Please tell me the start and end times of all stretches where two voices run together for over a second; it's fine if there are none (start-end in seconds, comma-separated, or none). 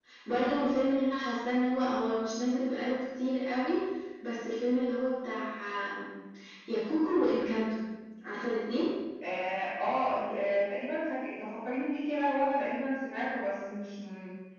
none